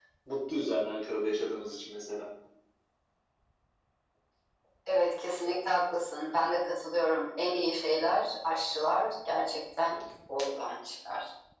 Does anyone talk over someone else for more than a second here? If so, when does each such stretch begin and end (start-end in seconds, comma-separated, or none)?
none